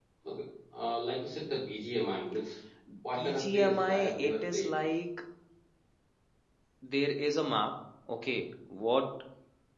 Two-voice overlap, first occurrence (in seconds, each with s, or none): 3.1 s